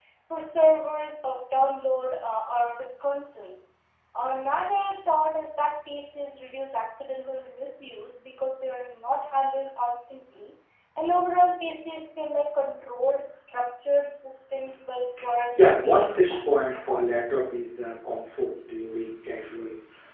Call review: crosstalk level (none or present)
present